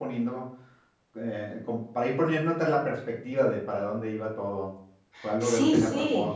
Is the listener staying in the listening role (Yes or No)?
Yes